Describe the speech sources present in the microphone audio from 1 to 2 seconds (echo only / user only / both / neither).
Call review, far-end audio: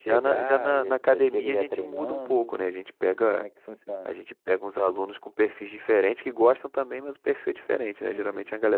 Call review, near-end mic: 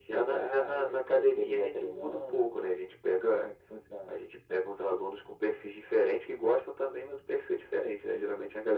echo only